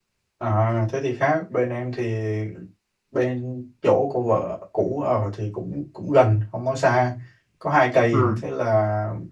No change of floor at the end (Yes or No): Yes